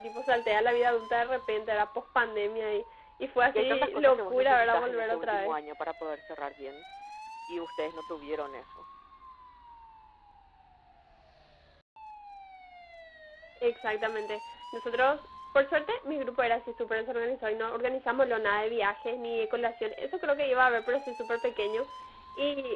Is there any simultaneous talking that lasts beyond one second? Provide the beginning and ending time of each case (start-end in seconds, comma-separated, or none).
3.5-5.5